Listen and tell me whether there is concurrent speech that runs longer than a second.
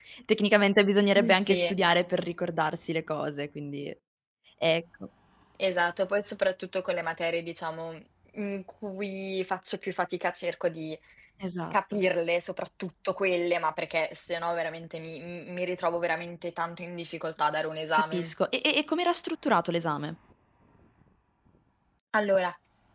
No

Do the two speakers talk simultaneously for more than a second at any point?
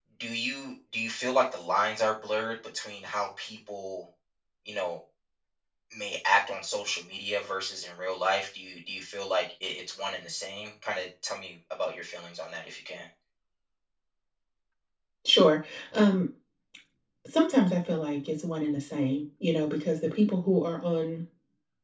No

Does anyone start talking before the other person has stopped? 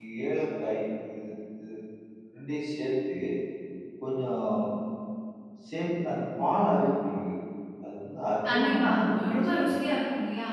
Yes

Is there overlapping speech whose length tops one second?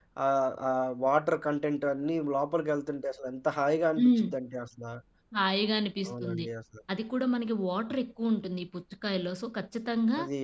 No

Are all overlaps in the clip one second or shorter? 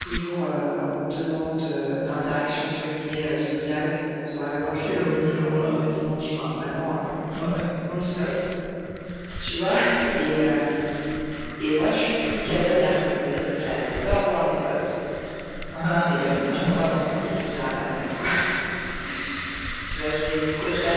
No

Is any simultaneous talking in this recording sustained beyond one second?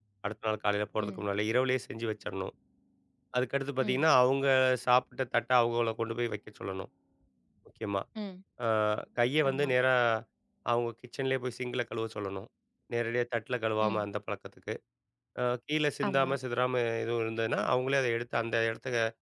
No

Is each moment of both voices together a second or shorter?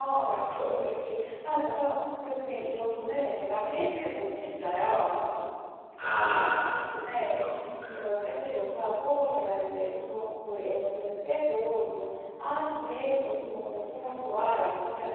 Yes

